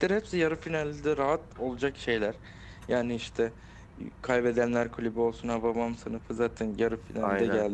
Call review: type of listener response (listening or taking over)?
listening